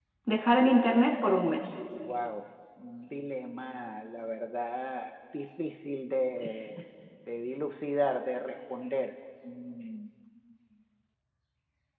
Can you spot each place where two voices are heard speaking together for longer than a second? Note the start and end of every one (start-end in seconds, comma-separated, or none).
none